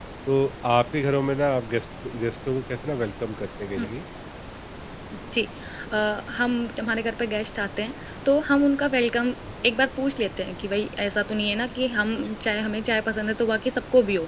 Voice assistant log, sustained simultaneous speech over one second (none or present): none